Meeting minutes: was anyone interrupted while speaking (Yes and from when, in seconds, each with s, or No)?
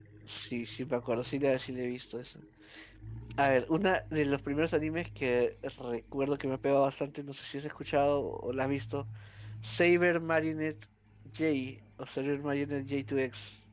No